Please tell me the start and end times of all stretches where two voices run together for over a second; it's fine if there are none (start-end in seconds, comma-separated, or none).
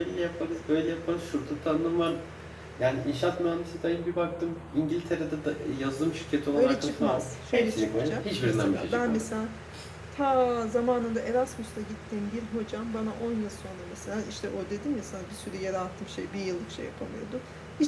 6.5-9.3